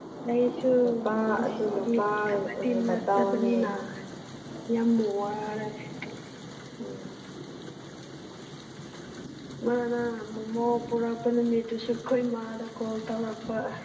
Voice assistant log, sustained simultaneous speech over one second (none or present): present